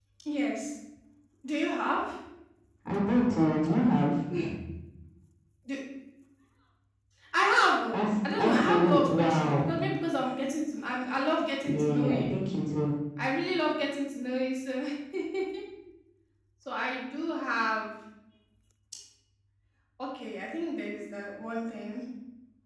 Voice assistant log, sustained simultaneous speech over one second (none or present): present